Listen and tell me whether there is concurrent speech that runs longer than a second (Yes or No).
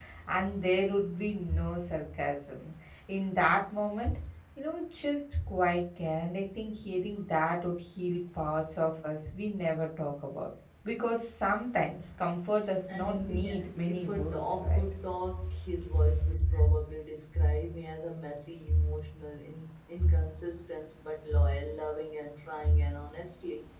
Yes